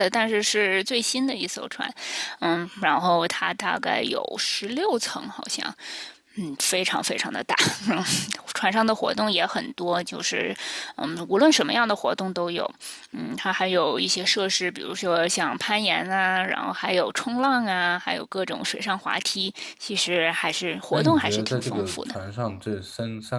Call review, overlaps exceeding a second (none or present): present